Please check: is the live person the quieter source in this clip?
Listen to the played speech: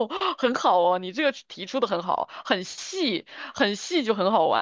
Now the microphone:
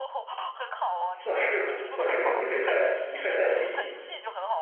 No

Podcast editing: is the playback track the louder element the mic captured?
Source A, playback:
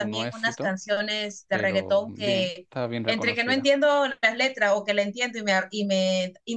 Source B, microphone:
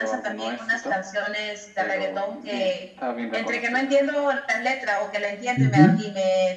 No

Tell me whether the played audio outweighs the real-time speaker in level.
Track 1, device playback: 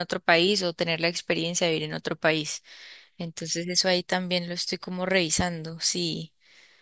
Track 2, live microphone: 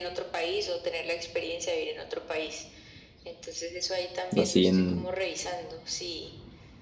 No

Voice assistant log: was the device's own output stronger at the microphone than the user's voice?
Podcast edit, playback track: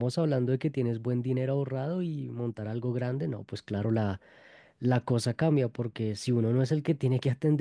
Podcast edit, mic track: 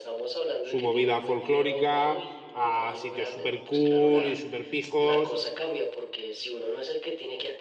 No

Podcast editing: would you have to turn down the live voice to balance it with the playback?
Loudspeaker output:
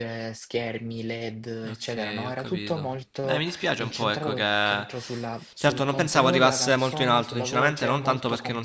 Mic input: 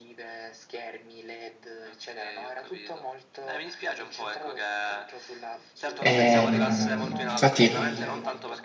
Yes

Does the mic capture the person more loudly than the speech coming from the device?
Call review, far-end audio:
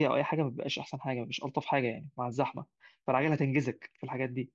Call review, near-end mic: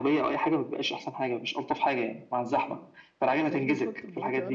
No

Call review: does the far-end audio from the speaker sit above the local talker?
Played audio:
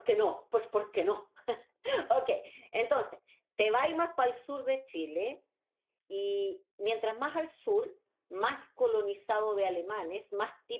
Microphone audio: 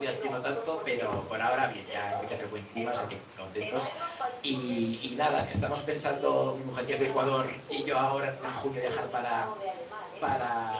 No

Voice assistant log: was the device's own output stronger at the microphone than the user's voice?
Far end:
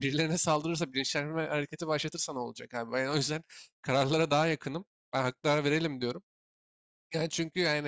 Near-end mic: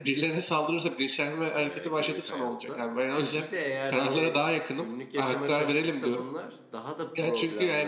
Yes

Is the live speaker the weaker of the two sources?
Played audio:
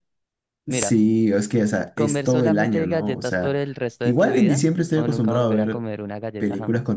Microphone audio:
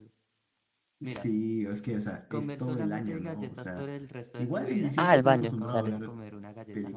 No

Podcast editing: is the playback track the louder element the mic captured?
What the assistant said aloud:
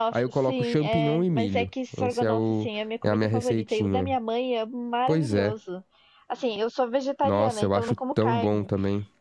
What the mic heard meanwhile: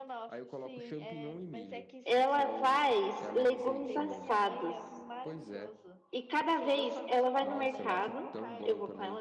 No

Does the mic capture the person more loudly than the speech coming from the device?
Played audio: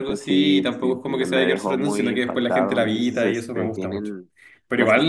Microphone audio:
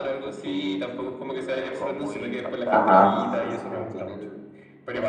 Yes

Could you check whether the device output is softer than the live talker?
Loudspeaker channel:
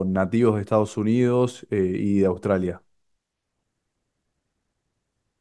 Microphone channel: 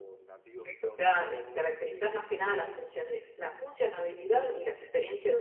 Yes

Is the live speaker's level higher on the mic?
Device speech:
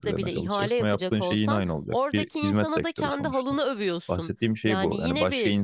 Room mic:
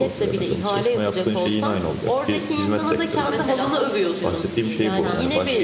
No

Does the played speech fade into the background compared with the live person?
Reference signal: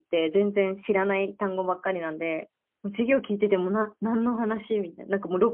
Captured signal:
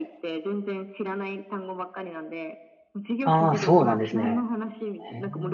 Yes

